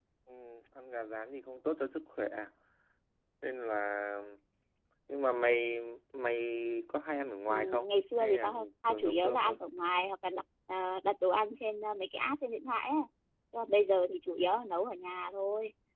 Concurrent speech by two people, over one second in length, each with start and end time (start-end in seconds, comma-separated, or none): 7.5-9.6